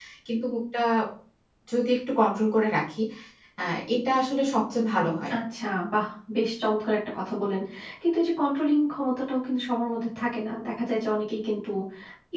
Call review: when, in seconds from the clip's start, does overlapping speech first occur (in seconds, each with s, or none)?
none